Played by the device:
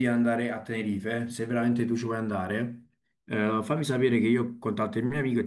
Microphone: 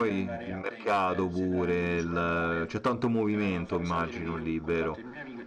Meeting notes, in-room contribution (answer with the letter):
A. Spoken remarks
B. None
A